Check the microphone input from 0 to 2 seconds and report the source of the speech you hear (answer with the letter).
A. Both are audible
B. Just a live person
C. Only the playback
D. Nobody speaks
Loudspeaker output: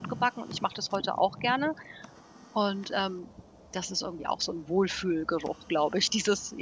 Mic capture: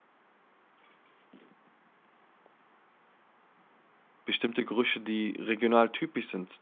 D